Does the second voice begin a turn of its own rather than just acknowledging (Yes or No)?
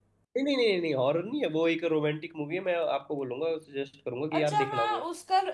Yes